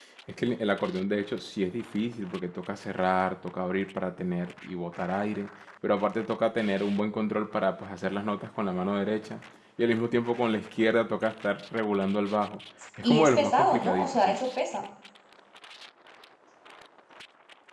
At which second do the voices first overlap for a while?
13.0 s

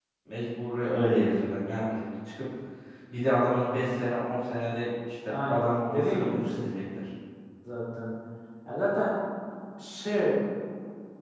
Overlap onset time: 5.2 s

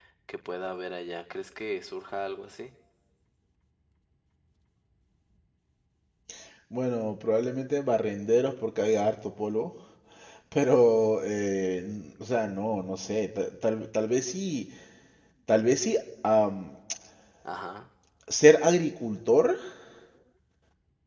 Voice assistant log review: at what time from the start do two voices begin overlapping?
none

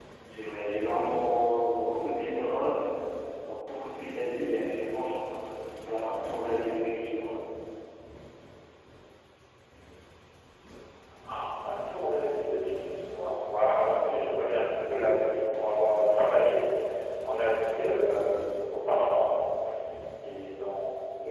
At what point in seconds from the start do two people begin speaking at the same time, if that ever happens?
none

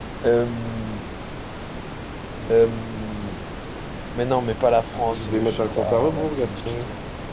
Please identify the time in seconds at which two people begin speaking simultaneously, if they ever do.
5.1 s

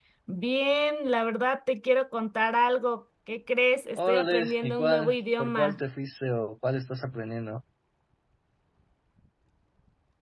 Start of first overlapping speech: 4.0 s

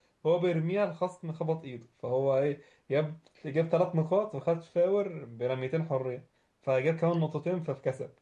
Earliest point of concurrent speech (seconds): none

